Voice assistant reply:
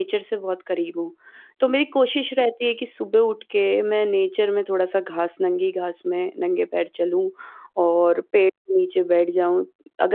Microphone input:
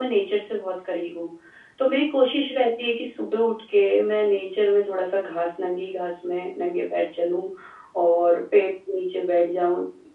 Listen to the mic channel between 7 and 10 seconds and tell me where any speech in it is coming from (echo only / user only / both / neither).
echo only